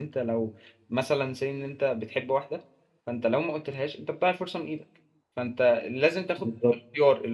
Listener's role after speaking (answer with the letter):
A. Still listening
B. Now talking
A